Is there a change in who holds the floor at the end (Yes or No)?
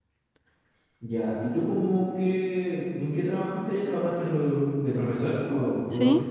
Yes